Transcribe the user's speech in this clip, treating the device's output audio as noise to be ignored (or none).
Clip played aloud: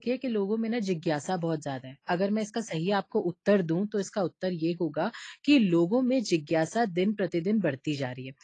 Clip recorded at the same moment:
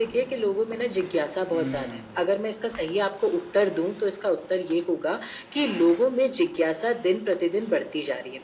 हुँ।